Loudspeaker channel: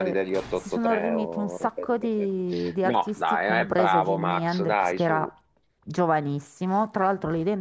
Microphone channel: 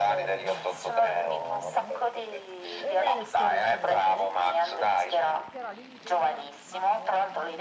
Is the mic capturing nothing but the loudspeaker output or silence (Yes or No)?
No